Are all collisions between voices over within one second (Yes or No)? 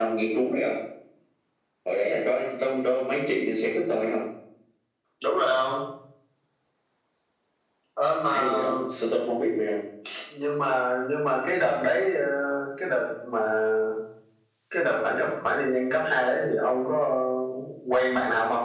Yes